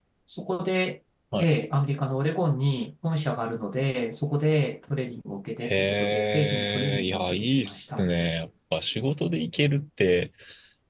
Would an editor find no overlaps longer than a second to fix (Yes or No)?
No